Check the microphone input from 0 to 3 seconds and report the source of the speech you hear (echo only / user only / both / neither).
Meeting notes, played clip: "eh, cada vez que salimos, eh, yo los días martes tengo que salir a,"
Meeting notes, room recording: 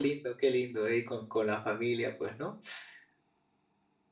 user only